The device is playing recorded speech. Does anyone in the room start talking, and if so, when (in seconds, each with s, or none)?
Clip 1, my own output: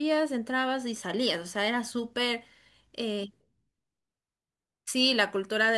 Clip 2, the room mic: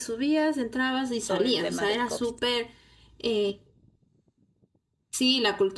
1.1 s